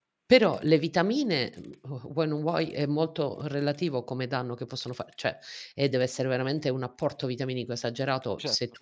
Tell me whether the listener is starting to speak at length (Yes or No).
No